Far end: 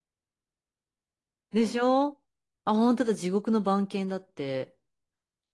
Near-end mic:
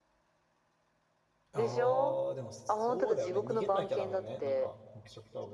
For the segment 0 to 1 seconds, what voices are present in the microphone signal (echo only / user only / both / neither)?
neither